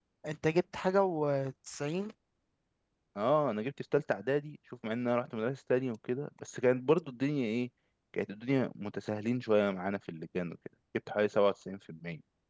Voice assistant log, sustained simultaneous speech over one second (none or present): none